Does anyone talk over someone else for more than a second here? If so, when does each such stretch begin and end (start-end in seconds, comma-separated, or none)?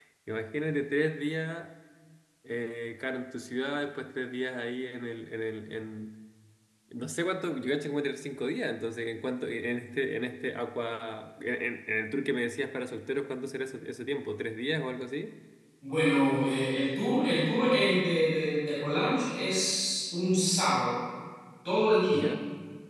none